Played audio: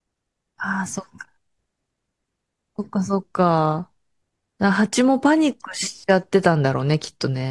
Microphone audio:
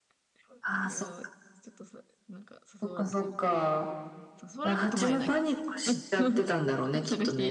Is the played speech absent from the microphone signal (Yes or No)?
No